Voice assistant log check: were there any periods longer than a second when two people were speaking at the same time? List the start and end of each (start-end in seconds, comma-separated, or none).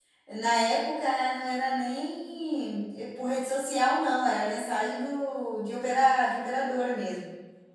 none